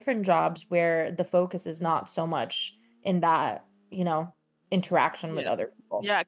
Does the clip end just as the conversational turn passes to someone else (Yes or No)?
Yes